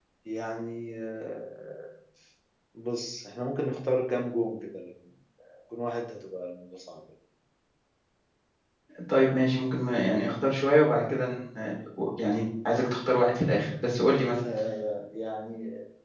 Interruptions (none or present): none